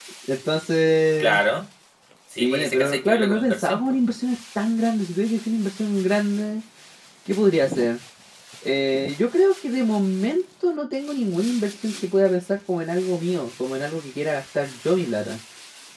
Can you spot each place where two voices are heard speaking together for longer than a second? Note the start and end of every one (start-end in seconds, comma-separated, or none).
2.3-3.8